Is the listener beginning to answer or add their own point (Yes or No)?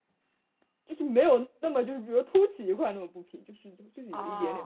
Yes